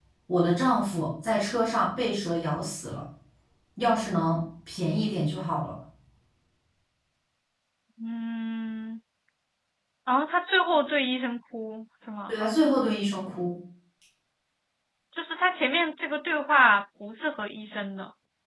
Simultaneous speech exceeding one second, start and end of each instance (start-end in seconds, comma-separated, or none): none